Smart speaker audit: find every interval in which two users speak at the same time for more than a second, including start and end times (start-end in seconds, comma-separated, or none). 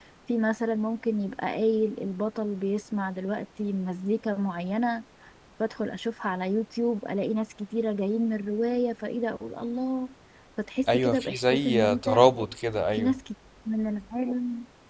10.9-12.1